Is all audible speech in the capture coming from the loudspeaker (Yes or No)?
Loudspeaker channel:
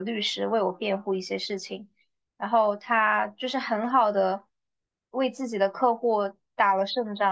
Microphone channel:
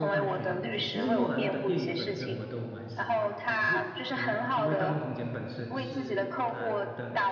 No